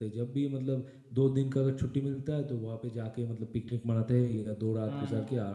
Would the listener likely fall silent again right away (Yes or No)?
Yes